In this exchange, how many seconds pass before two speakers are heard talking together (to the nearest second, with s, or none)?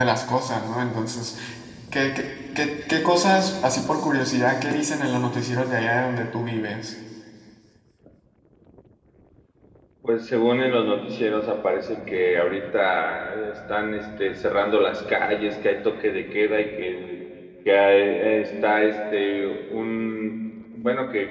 none